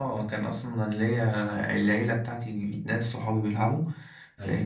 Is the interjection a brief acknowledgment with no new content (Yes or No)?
Yes